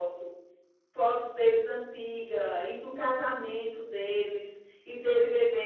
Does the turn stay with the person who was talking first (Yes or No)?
Yes